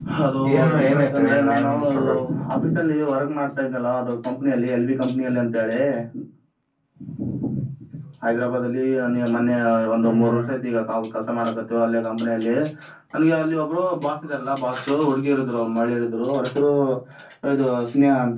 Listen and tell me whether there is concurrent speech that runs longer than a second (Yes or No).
Yes